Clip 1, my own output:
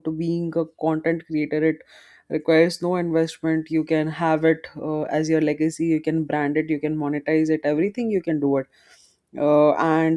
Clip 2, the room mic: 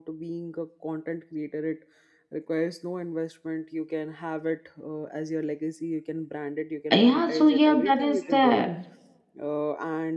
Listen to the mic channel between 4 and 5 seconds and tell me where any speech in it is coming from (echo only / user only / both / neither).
echo only